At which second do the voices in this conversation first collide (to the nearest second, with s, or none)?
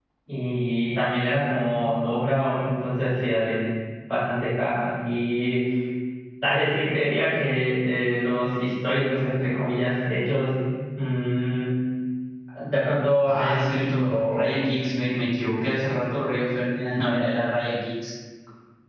13 s